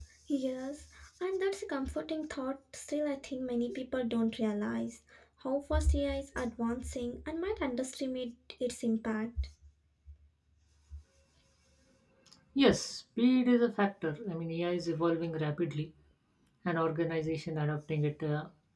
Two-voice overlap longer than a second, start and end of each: none

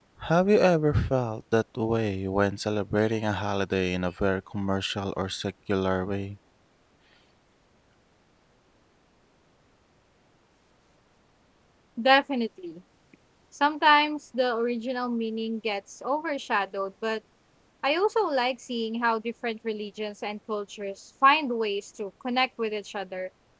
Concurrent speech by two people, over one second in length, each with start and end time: none

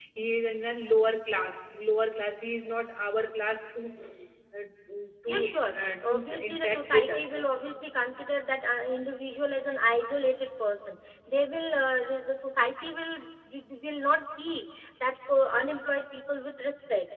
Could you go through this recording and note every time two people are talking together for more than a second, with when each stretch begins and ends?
5.7-7.3

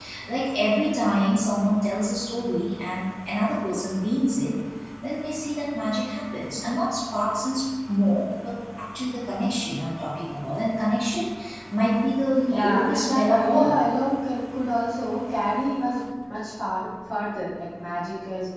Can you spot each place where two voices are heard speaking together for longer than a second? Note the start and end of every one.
12.5-13.8

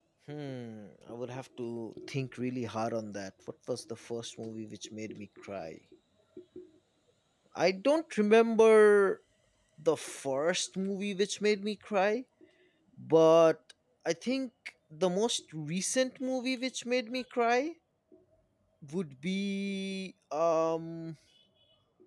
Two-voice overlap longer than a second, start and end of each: none

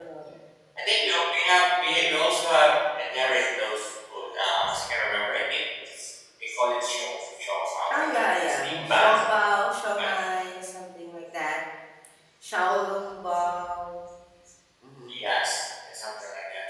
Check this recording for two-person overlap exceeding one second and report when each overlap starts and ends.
7.9-9.2

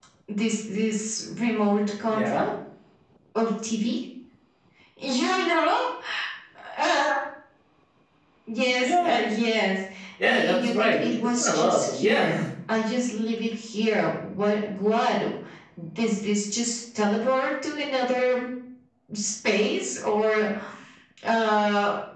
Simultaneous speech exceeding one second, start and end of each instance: 10.2-12.4

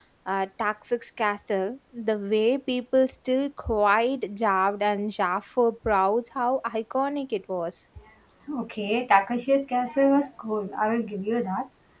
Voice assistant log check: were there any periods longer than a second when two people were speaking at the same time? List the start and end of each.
none

